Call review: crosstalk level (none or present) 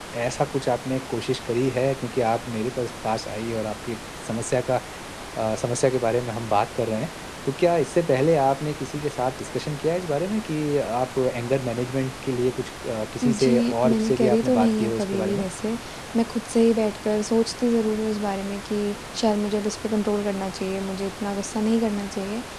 present